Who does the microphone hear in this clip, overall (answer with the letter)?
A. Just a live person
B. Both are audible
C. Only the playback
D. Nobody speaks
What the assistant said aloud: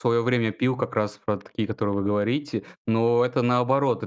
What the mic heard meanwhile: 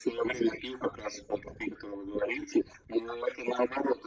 C